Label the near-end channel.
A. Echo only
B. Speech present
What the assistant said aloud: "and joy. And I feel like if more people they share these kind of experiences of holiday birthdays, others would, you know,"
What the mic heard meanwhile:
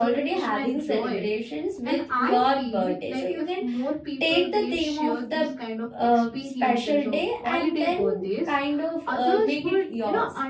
B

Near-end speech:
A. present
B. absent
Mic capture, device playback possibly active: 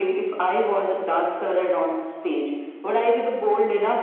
B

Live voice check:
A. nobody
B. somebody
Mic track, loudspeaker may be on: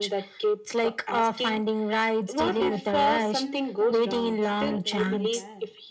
B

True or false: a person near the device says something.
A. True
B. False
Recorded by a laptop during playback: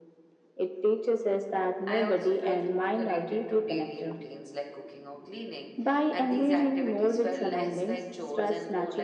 A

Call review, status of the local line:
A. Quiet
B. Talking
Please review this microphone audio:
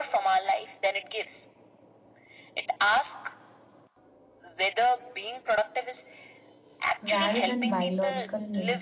B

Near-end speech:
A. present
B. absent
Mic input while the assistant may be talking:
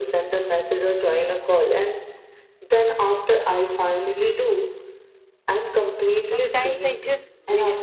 A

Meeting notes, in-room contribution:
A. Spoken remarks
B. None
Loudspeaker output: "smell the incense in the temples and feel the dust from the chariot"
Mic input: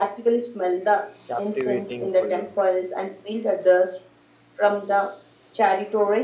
A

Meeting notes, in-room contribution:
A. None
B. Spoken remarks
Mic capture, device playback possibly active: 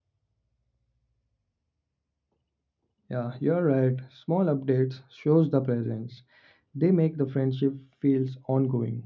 B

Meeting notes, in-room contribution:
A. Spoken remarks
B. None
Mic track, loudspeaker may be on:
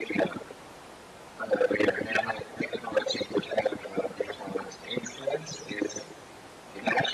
B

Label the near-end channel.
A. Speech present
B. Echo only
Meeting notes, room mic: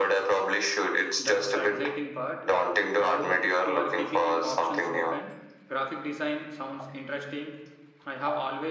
A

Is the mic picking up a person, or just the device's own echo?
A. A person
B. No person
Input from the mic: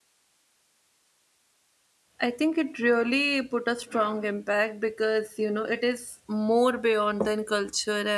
A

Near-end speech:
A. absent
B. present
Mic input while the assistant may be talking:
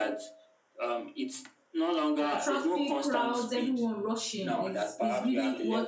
B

